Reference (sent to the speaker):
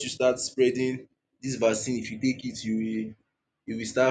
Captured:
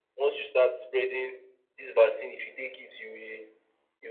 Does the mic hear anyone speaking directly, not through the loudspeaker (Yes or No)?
No